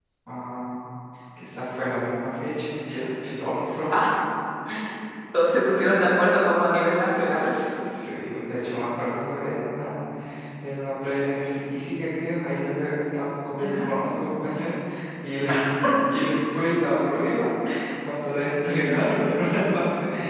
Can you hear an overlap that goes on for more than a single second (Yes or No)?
No